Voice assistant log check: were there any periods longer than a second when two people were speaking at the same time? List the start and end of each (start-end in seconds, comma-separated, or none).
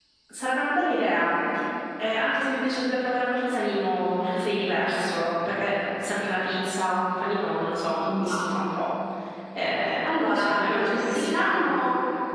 10.0-11.7